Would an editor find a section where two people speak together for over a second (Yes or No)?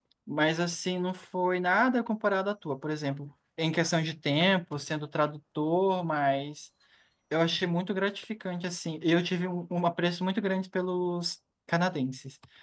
No